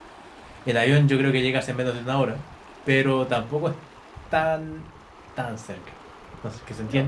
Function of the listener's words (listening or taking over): listening